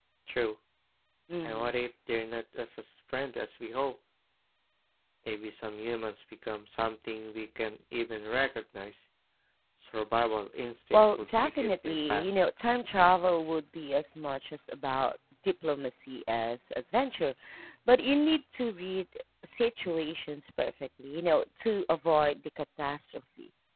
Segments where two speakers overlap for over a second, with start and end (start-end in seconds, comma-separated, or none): 10.9-12.4